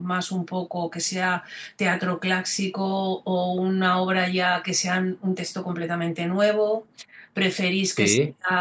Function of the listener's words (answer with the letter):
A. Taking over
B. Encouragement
B